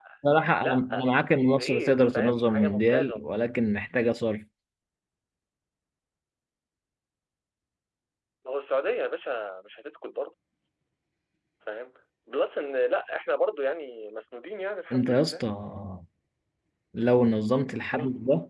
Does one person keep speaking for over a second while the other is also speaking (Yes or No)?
Yes